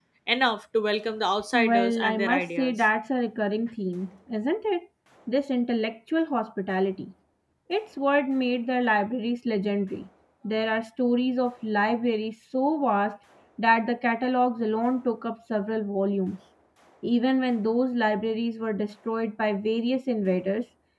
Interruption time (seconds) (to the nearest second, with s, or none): 2 s